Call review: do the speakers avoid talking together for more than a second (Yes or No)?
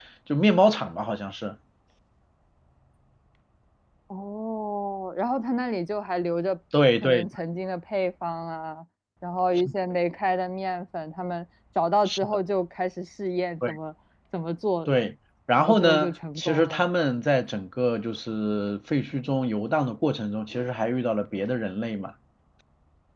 No